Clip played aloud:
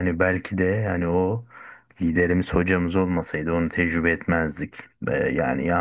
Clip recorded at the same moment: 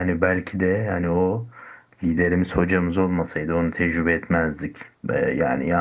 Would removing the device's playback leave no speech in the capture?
Yes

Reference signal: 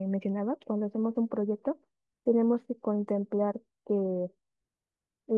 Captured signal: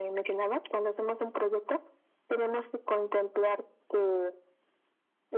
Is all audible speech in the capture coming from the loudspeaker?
Yes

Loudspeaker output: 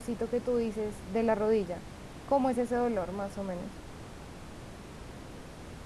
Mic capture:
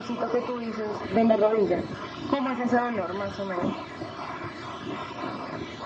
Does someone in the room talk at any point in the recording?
No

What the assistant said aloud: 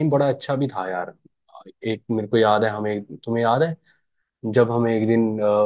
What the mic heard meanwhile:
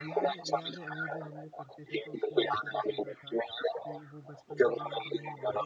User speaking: Yes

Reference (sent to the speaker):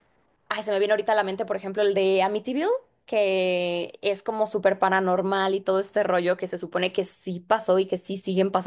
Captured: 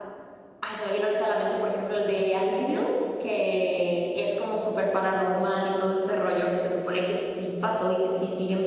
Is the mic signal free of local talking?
Yes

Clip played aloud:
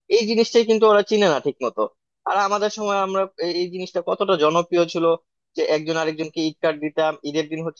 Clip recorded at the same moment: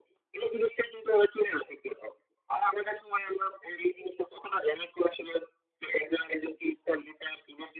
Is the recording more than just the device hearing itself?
No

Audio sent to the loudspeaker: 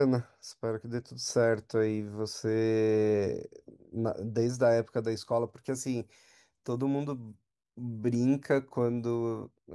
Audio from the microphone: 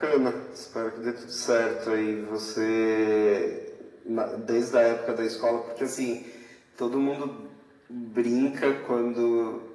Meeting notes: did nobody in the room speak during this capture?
Yes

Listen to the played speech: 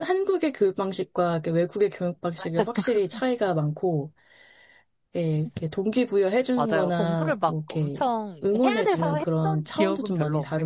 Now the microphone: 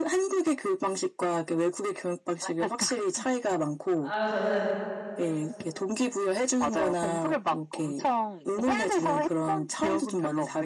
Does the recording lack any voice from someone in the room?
No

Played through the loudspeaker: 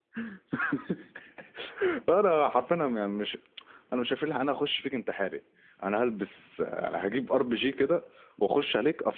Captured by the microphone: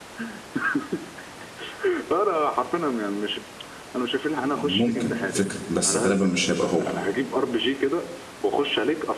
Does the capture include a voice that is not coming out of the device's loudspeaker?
Yes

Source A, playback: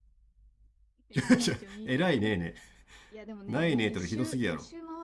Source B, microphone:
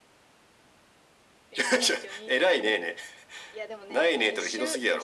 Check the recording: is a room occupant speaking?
No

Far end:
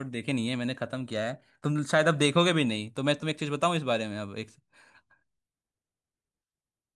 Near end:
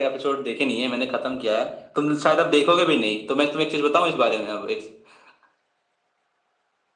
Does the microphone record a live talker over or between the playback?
No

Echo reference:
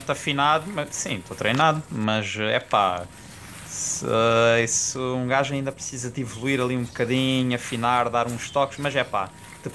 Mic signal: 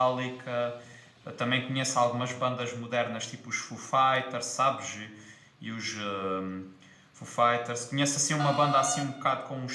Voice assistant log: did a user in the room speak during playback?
Yes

